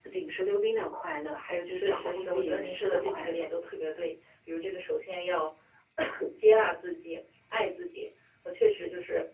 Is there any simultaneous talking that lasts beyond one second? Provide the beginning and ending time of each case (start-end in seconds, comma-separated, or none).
1.6-3.4